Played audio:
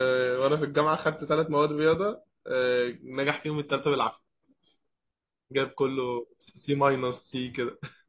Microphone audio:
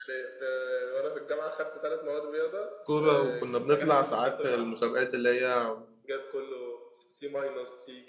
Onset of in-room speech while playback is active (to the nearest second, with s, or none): 3 s